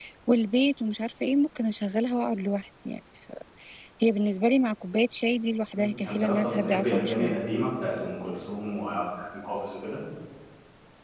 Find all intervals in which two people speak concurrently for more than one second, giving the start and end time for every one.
5.8-7.4

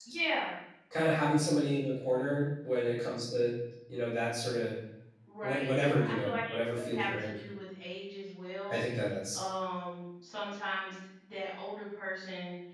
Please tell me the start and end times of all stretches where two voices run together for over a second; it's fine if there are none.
5.4-7.3

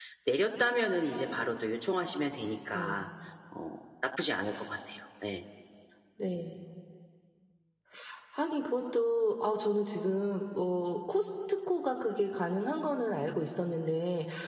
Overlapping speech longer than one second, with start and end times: none

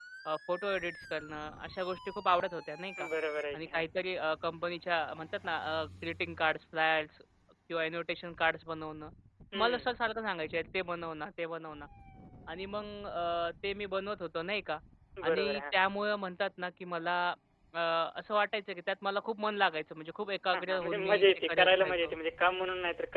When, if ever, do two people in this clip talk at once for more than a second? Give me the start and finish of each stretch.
20.5-22.1

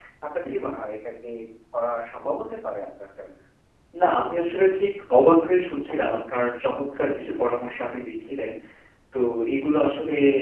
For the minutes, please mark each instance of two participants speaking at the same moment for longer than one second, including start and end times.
none

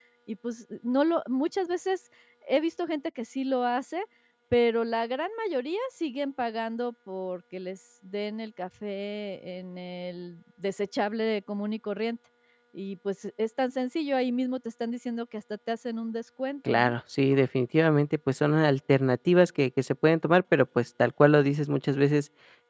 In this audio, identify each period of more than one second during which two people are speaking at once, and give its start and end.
none

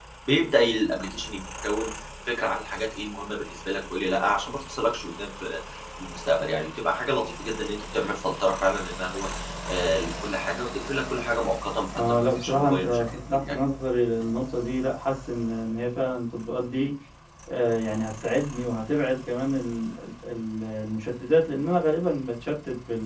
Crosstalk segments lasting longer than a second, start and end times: 11.9-13.6

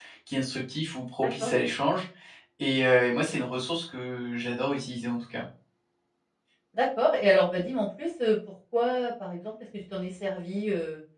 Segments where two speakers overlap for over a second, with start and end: none

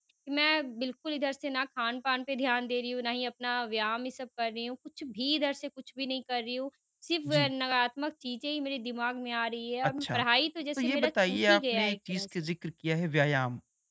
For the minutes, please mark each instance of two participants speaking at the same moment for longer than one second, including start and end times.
10.8-12.2

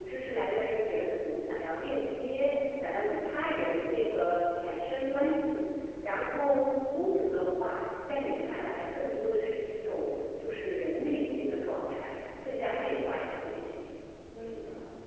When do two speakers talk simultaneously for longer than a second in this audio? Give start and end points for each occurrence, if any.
none

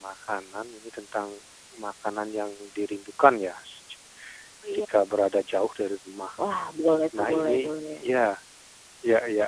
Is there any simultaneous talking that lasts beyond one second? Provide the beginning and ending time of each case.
none

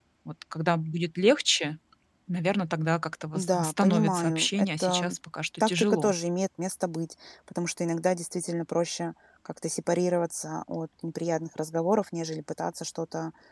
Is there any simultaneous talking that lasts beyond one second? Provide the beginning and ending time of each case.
3.4-5.2

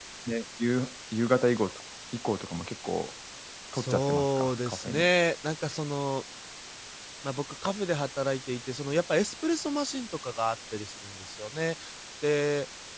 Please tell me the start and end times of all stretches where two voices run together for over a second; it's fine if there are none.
3.7-5.1

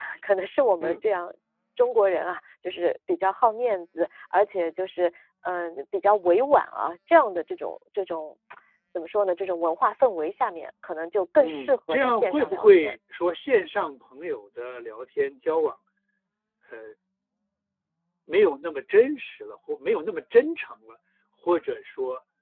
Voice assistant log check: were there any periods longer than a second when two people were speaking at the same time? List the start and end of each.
11.4-12.9

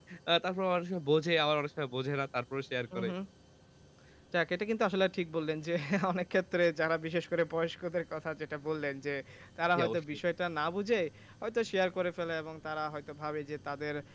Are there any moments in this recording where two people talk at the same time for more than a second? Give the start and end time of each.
none

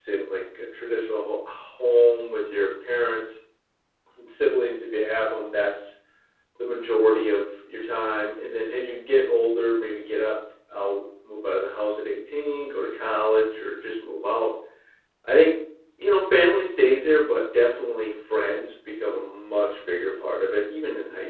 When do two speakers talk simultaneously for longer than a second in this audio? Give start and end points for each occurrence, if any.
none

